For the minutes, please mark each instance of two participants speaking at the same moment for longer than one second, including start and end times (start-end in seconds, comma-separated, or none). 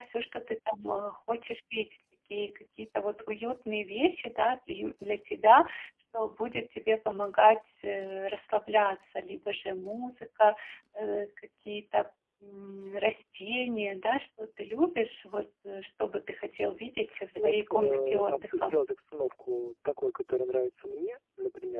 17.4-18.8